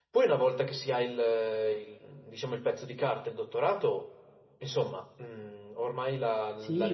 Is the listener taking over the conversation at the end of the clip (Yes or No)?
Yes